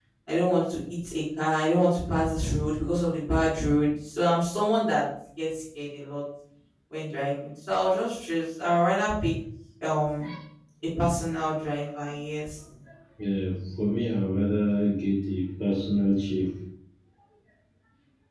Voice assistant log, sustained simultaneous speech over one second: none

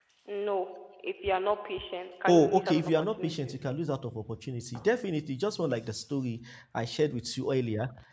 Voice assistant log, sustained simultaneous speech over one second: present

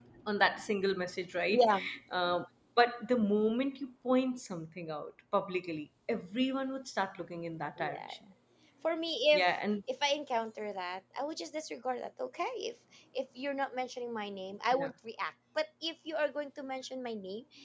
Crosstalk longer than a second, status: none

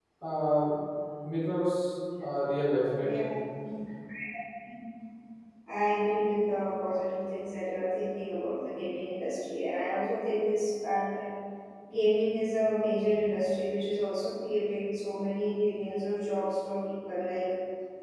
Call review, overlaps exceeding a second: none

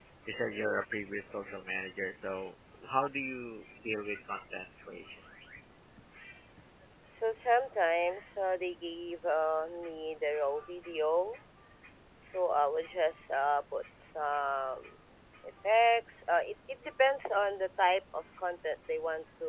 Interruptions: none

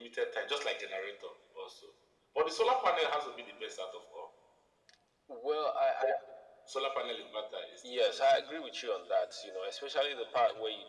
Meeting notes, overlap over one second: none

